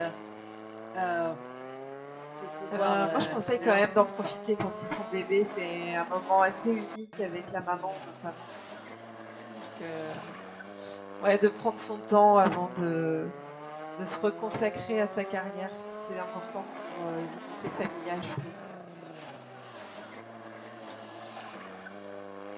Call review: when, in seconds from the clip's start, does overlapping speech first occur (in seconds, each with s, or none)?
2.8 s